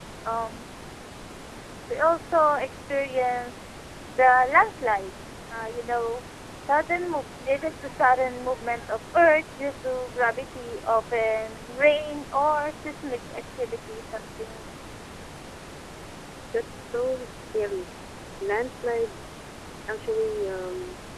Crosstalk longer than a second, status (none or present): none